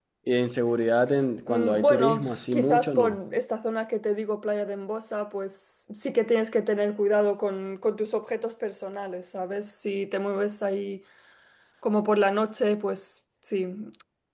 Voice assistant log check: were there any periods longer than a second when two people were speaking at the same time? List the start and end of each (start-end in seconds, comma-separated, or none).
1.5-3.2